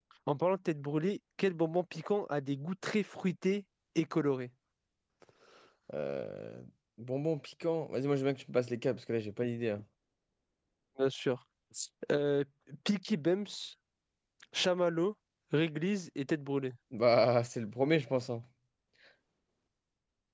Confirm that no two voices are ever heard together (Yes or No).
Yes